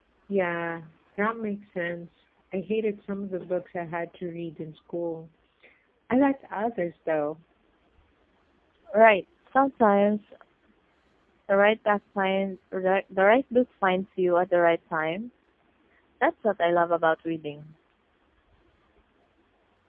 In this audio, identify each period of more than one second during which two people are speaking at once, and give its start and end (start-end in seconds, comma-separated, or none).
none